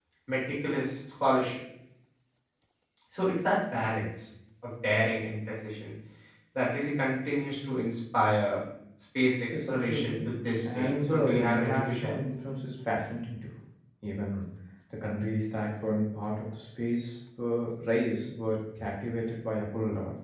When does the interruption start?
9.7 s

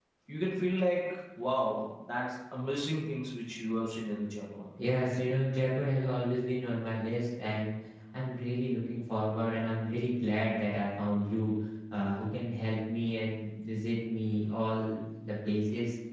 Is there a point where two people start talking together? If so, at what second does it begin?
none

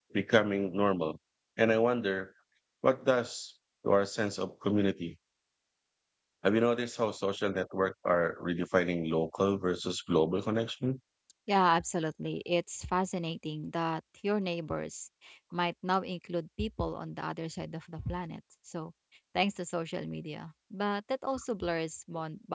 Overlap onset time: none

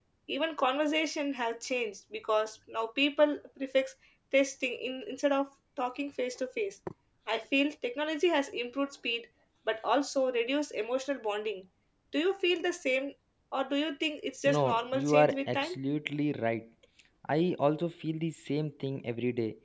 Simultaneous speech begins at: 14.5 s

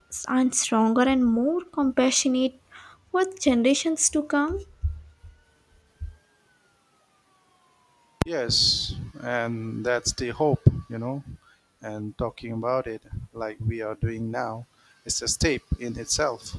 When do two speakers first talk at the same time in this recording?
none

